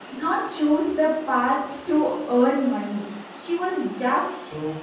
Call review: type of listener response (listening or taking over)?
listening